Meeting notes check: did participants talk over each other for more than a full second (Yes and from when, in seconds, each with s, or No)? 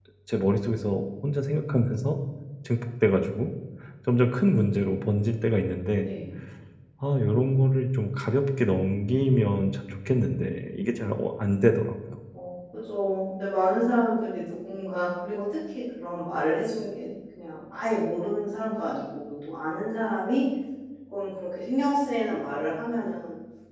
No